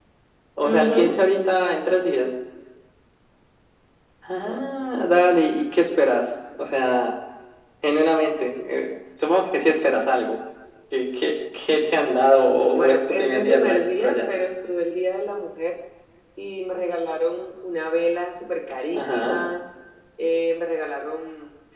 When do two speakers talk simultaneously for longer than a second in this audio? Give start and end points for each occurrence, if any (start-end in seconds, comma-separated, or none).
12.7-14.3